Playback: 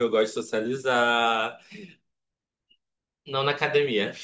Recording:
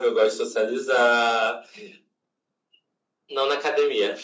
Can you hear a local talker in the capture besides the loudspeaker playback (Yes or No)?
No